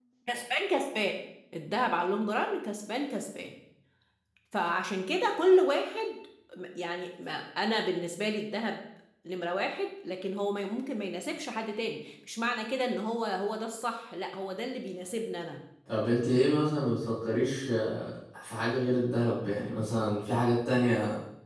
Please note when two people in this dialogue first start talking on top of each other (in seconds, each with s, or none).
none